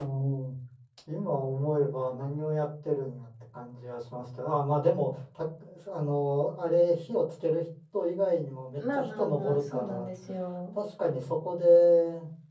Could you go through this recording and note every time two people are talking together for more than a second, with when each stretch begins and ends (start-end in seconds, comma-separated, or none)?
8.8-10.1